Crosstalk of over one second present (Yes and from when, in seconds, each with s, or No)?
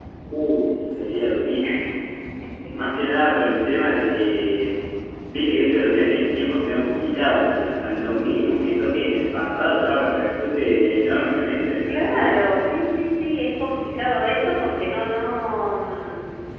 No